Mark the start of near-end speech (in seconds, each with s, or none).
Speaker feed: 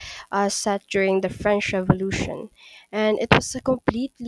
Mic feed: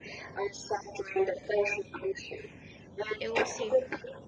3.2 s